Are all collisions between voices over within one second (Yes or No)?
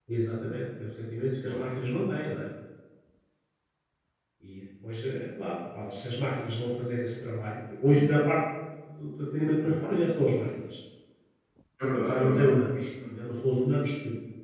Yes